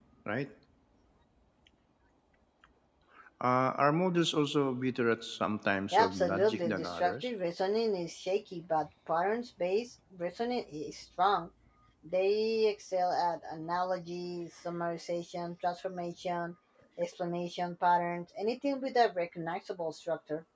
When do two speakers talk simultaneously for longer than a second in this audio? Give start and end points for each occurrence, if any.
5.9-7.3

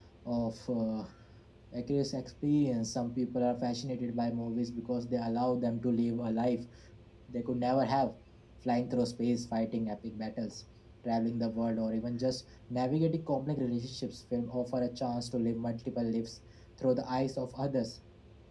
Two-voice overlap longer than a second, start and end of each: none

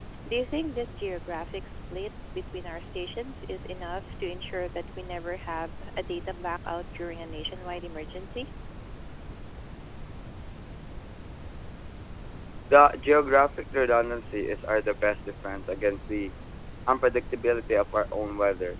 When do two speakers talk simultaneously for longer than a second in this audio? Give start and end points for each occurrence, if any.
none

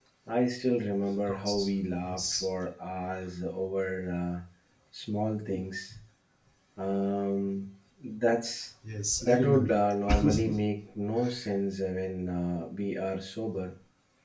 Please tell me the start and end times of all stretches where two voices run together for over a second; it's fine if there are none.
none

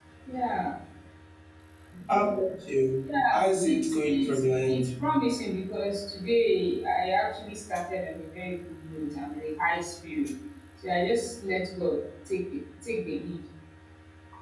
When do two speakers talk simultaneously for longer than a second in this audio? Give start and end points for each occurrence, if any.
3.3-4.9

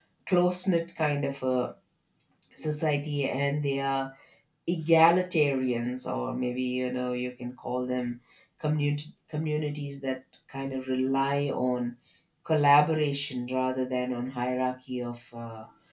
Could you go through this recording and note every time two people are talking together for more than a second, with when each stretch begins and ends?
none

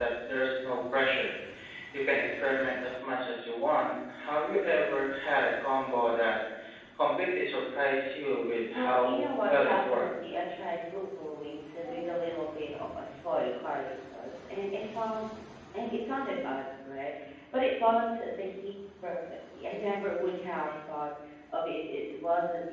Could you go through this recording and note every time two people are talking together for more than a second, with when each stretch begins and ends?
8.7-10.0

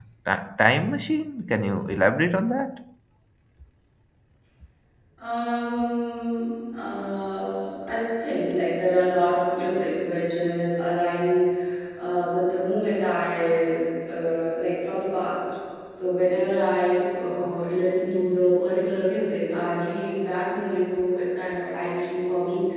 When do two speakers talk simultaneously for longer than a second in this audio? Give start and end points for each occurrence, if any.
none

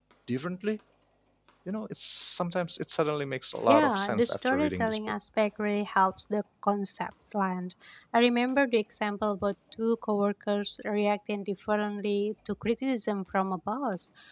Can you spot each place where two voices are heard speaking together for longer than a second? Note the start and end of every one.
3.7-5.0

